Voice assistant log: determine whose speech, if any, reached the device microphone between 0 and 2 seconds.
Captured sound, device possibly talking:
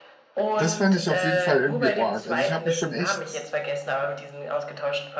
both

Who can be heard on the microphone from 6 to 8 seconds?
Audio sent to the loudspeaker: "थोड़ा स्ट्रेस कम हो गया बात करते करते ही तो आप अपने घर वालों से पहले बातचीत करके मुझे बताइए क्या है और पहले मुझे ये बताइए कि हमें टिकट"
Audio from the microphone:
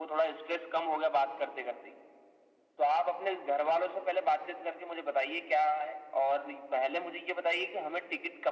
echo only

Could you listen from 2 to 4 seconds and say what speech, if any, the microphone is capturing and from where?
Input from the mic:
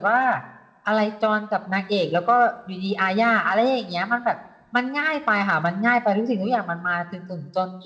echo only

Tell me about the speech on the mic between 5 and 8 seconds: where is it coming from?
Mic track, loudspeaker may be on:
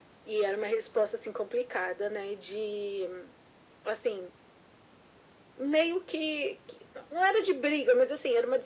echo only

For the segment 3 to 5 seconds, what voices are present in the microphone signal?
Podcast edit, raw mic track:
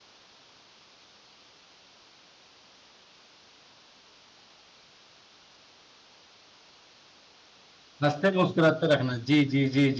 neither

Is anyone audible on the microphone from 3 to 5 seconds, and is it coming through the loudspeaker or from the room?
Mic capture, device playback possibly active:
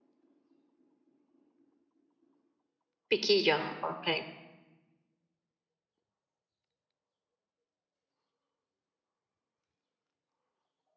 user only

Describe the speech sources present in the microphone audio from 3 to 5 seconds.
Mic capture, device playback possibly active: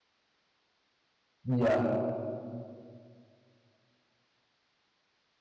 neither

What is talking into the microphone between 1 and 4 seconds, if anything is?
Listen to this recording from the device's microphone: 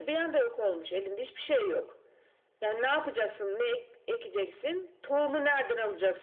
echo only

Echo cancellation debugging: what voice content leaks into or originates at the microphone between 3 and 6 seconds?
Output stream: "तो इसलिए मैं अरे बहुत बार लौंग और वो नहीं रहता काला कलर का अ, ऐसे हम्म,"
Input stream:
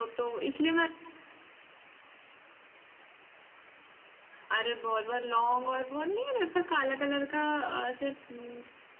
echo only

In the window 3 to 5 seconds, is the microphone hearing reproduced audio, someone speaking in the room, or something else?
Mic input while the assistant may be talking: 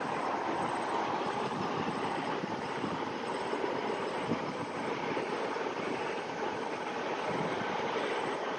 neither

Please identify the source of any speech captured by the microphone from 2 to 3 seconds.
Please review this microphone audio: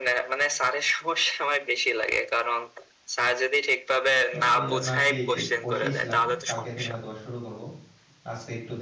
echo only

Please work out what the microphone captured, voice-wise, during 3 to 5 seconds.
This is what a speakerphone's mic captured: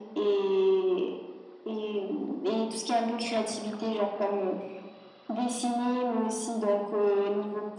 echo only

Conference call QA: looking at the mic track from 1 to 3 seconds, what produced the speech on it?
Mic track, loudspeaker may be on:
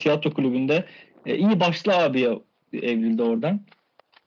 echo only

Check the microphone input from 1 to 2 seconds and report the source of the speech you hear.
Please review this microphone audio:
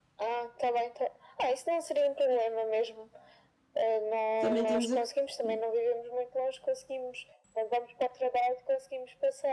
echo only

